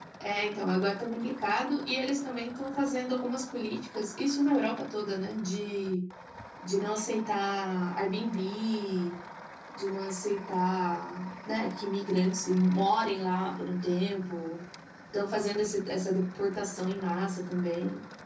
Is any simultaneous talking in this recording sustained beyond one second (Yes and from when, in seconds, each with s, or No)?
No